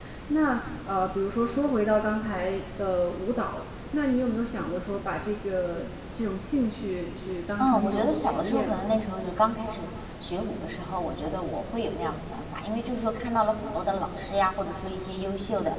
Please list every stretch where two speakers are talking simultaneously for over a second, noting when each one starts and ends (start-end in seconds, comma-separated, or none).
7.6-8.9